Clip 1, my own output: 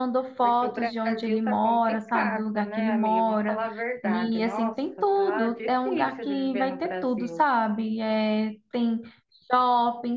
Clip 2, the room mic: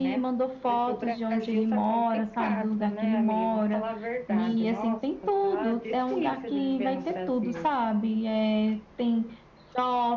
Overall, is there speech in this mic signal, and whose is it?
echo only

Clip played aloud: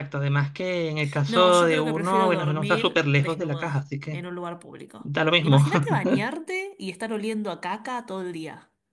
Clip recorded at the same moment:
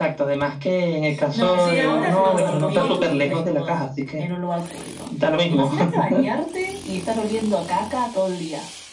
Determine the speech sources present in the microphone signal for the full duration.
both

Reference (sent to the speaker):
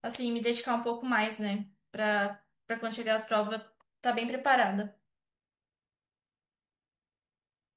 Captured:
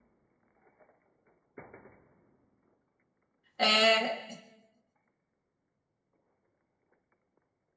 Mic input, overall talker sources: user only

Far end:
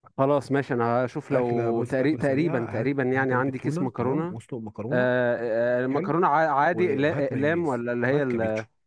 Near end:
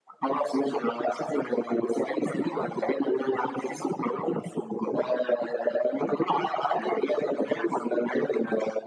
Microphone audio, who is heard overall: echo only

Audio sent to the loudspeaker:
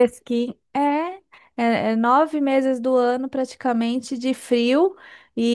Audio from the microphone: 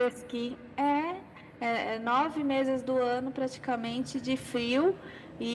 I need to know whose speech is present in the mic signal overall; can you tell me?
echo only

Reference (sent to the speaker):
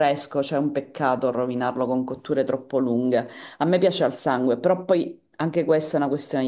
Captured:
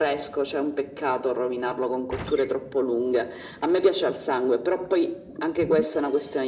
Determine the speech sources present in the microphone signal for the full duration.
echo only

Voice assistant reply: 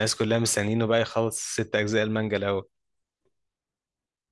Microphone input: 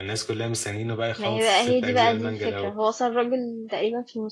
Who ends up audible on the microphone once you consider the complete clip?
both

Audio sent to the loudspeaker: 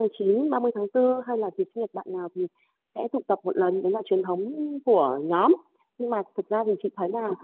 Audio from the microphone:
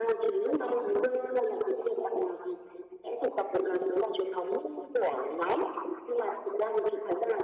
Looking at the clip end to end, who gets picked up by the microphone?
echo only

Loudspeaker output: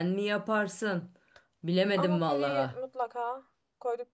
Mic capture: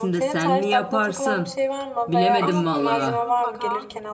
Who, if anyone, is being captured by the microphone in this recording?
both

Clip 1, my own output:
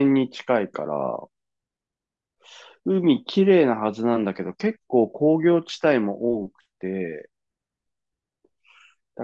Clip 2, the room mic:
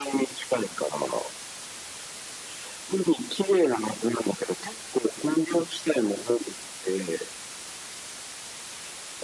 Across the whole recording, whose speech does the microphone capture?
echo only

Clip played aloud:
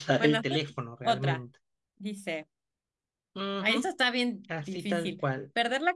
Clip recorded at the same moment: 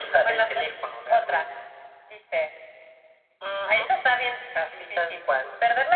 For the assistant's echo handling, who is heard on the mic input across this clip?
echo only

